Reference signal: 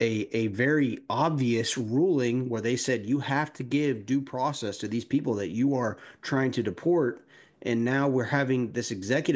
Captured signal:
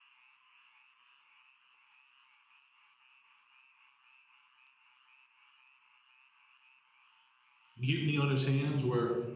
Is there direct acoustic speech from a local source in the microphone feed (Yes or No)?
Yes